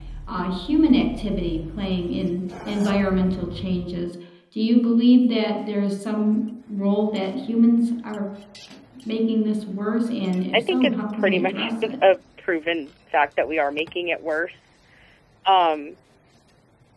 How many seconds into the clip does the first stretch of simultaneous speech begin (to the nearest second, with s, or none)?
11 s